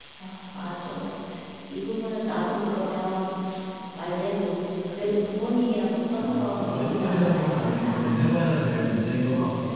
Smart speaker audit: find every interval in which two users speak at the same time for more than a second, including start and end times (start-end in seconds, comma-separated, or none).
6.2-8.0